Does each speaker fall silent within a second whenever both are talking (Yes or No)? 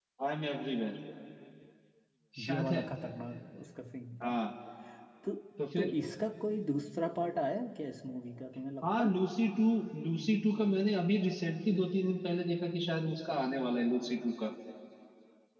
Yes